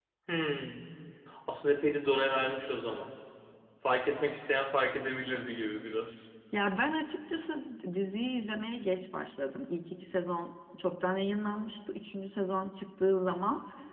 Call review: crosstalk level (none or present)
none